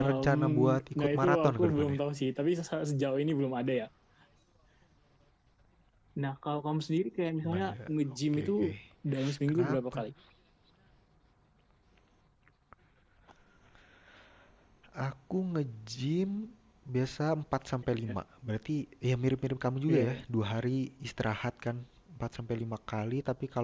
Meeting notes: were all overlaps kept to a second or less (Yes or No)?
No